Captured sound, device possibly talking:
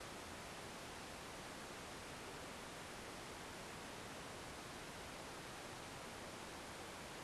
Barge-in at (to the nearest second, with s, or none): none